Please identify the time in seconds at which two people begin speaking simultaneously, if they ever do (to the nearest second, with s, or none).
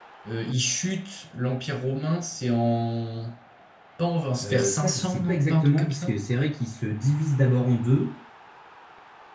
4 s